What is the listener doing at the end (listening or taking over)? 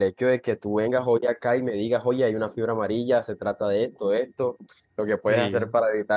listening